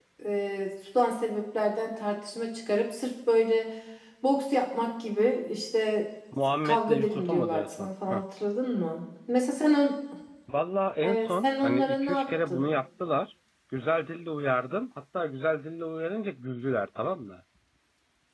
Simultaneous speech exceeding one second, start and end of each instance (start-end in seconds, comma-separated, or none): 6.6-8.2, 11.0-12.6